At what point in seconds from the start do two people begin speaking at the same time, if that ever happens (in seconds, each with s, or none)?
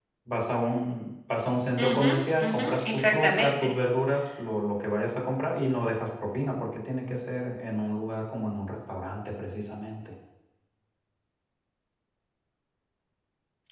1.8 s